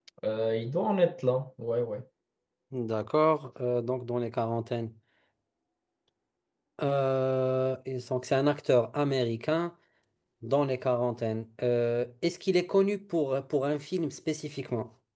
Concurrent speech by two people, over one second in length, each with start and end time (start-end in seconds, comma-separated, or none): none